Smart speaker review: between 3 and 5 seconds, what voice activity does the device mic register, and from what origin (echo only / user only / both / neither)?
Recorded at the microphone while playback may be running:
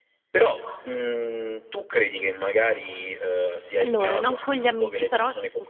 both